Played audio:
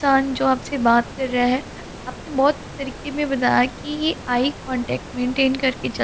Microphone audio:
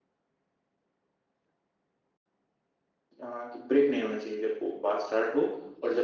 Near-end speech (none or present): present